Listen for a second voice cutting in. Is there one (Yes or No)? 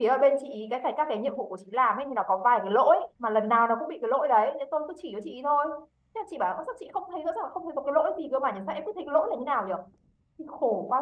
No